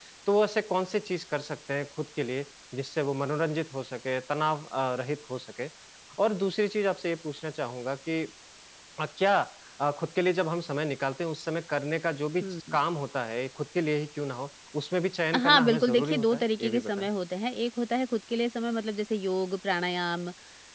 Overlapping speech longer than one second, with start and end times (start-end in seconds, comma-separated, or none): 15.3-17.1